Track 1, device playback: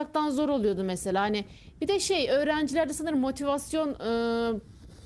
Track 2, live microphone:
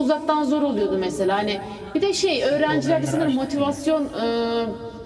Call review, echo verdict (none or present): present